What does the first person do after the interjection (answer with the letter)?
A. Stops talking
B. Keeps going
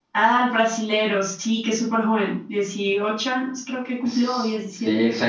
A